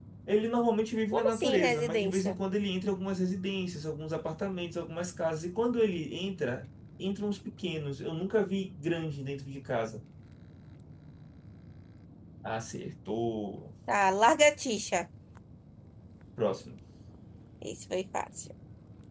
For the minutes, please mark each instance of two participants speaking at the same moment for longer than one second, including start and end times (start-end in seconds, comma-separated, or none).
1.1-2.4